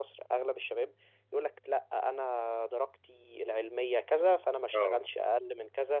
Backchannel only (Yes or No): Yes